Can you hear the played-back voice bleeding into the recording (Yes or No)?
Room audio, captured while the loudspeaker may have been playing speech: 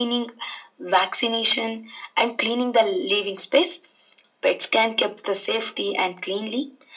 Yes